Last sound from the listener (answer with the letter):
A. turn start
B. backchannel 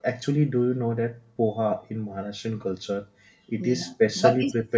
A